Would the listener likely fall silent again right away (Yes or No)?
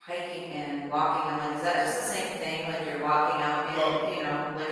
Yes